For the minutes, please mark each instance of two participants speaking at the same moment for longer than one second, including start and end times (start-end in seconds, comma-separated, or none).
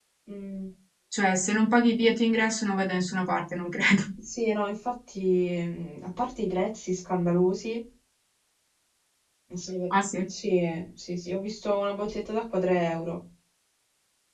none